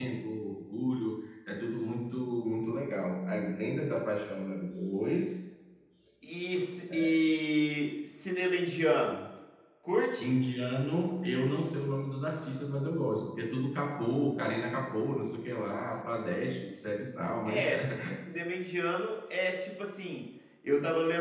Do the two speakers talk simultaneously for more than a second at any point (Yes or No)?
No